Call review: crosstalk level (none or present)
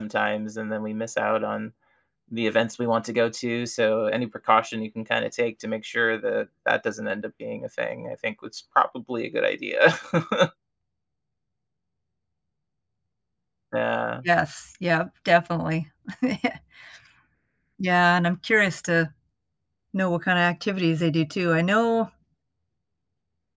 none